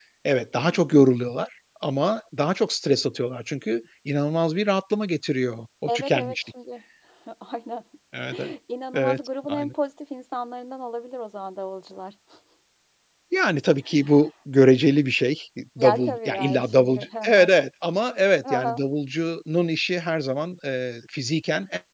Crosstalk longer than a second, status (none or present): present